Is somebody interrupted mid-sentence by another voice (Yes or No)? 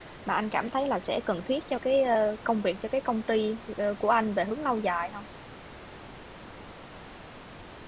No